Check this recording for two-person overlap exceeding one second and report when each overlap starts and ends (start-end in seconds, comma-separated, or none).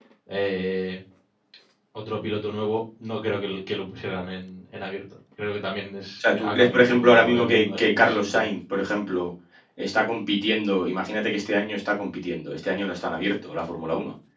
6.2-8.4